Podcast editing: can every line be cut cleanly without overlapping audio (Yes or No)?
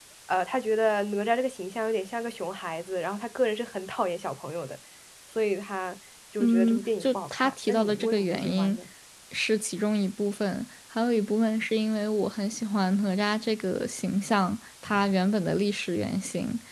No